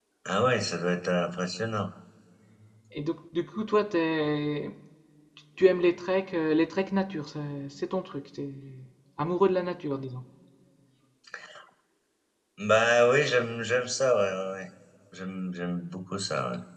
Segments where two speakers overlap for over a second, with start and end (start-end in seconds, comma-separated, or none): none